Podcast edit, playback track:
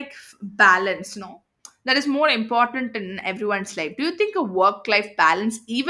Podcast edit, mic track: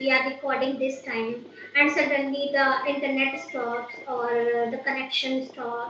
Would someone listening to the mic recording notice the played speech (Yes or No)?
No